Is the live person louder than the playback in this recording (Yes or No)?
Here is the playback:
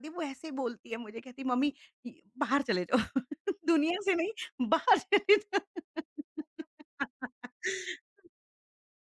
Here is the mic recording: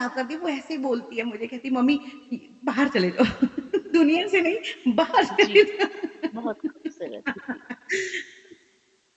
No